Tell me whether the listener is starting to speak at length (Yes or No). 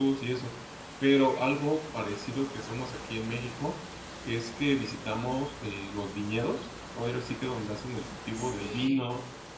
No